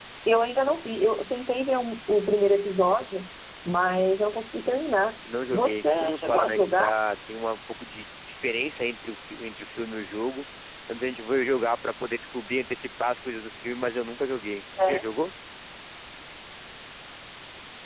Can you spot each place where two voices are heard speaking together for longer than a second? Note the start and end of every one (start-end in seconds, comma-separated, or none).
5.5-6.9